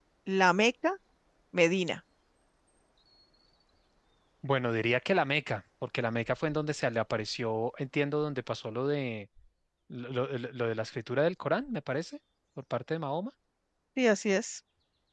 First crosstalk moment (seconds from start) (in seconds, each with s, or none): none